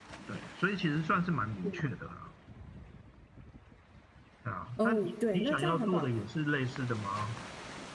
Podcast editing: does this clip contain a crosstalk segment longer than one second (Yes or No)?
Yes